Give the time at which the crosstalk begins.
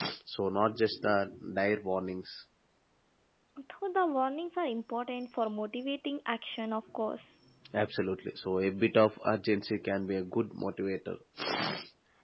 none

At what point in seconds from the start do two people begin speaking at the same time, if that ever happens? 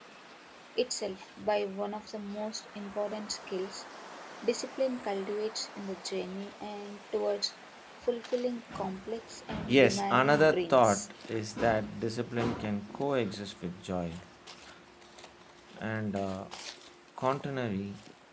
10 s

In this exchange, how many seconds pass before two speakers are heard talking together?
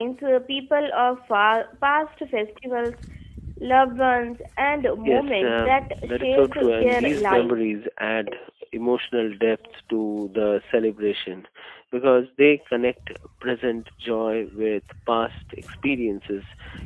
5 s

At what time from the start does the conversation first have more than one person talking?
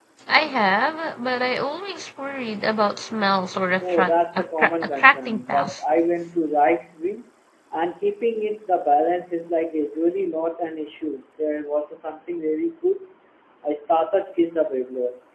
4 s

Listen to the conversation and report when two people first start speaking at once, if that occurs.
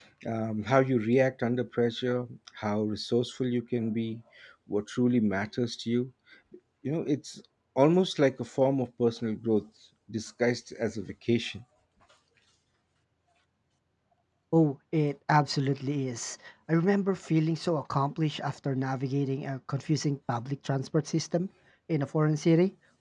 none

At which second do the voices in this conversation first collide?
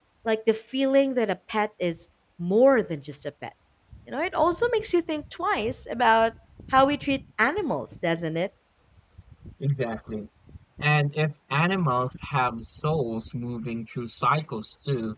none

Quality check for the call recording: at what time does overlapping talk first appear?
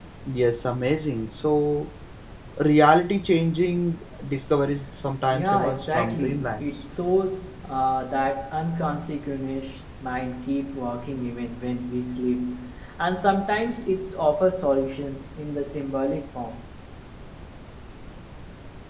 5 s

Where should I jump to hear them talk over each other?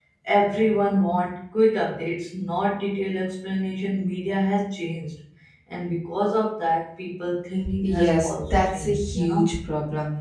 8 s

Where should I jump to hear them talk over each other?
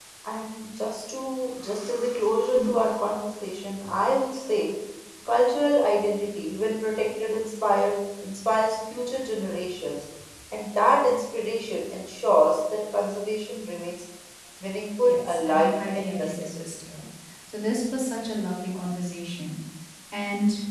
15 s

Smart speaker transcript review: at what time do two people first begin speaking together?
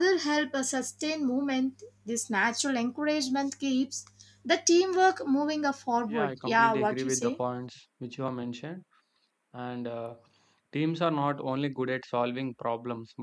6 s

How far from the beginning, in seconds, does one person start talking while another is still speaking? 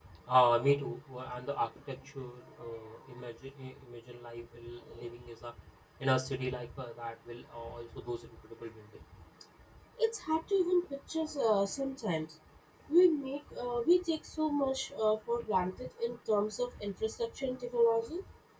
none

